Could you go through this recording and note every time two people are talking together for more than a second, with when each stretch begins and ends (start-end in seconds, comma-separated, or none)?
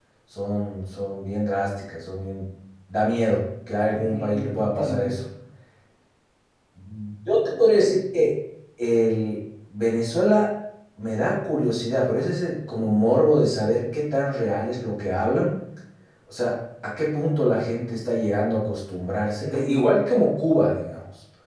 3.9-5.2